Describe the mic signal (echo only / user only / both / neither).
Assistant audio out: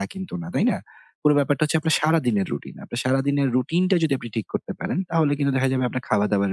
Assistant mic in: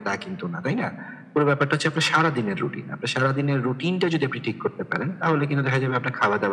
echo only